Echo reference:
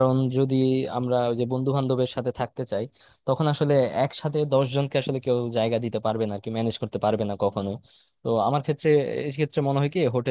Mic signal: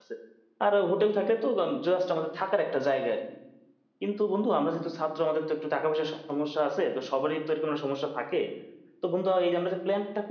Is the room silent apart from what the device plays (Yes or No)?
No